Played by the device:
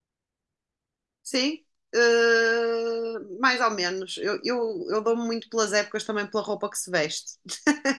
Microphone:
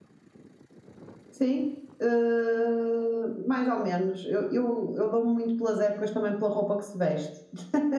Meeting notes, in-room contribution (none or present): none